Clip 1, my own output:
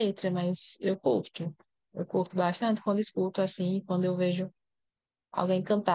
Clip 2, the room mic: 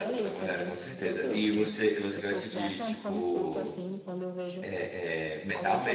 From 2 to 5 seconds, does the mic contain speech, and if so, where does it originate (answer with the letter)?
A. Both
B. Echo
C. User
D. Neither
A